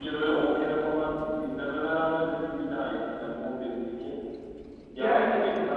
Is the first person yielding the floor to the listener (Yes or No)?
No